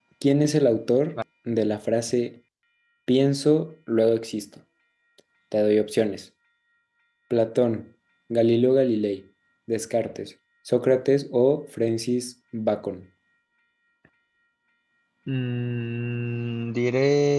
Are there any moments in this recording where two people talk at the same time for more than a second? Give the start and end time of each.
none

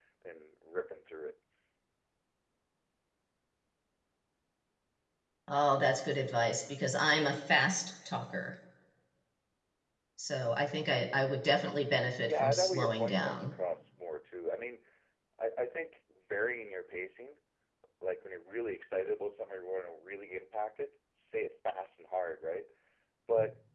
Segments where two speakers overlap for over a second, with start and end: 12.2-13.5

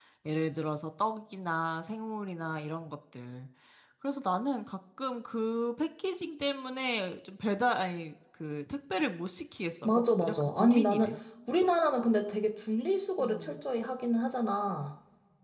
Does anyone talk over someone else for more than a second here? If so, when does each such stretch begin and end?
9.8-11.1

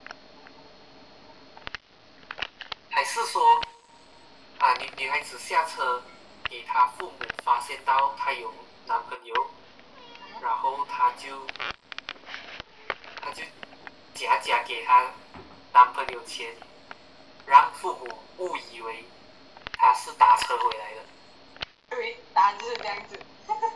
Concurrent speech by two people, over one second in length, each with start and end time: none

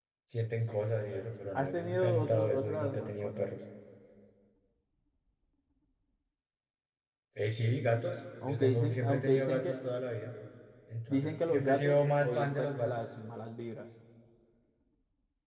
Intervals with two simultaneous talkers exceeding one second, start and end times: 1.6-3.5, 8.4-9.8, 11.1-13.0

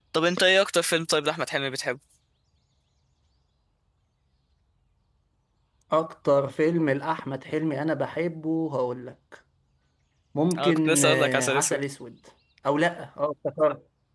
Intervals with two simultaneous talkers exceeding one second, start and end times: 10.6-11.8

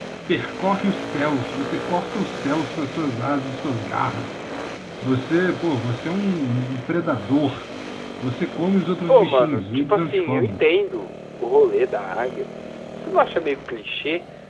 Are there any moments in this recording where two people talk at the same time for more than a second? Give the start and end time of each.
9.1-10.6

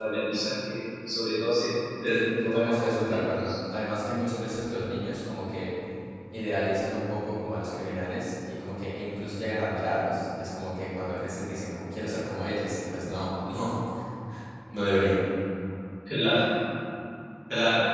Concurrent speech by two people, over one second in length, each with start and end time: 2.1-3.5

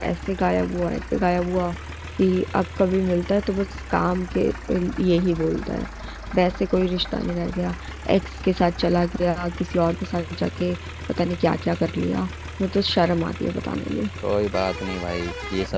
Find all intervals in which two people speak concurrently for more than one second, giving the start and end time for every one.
none

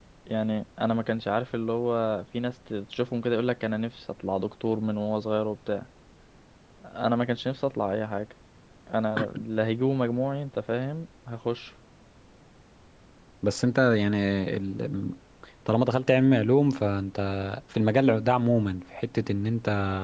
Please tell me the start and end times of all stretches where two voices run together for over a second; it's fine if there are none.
none

